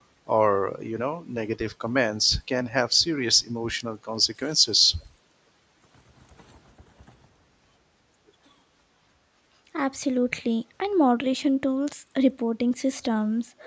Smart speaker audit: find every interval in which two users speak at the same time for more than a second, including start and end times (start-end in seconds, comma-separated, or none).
none